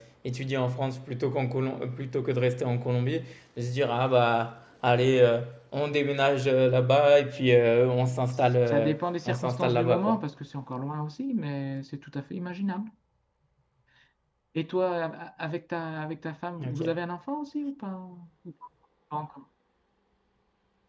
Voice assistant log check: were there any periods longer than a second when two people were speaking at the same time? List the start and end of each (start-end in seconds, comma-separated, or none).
8.7-10.2